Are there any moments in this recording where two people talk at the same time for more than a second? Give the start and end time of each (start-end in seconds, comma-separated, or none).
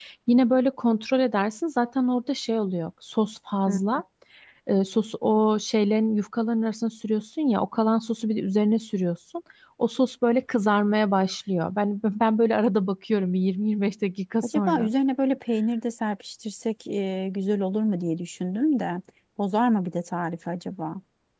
none